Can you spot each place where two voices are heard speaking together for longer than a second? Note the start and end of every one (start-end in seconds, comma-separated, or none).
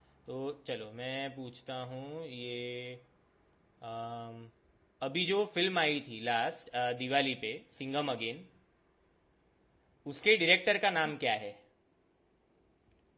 none